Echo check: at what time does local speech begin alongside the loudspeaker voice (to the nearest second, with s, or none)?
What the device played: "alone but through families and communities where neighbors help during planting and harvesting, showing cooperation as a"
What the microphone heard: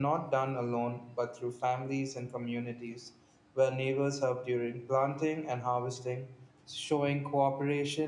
none